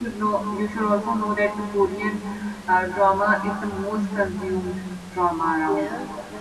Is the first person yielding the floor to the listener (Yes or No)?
Yes